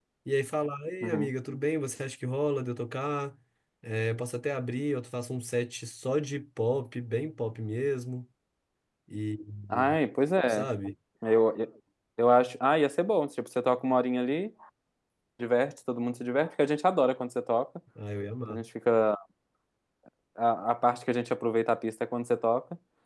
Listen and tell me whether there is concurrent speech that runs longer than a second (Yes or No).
No